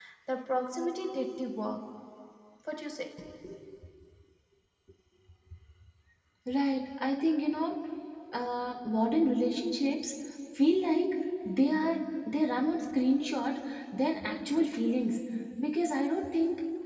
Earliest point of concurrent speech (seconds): none

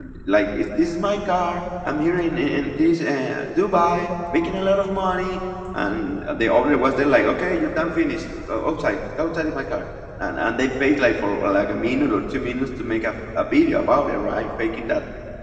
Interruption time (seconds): none

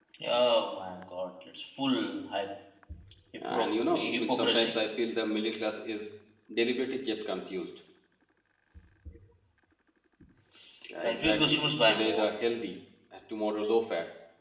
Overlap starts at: 3.5 s

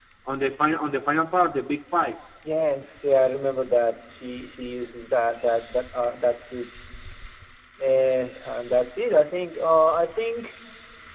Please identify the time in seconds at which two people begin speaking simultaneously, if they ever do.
none

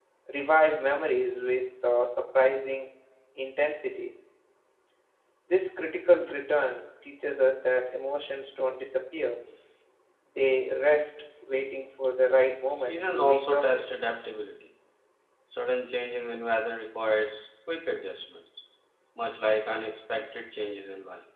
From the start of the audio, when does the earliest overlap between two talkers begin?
12.7 s

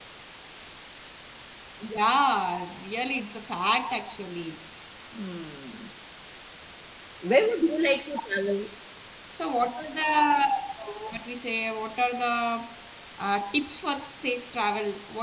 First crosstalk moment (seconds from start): none

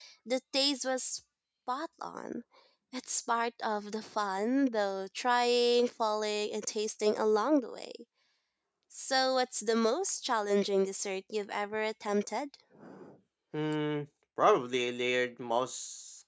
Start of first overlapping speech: none

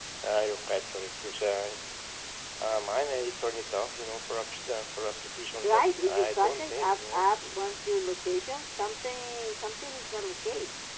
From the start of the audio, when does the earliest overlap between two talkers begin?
5.6 s

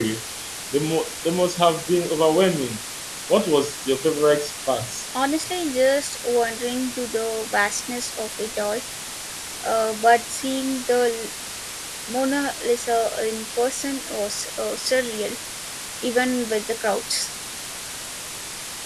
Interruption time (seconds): none

